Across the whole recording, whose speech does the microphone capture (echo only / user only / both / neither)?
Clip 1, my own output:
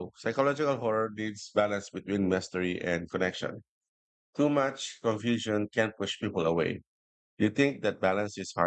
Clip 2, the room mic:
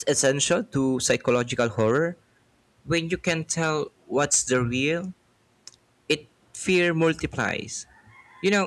user only